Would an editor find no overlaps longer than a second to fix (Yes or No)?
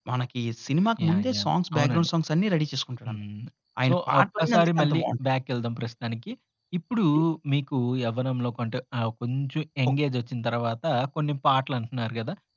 No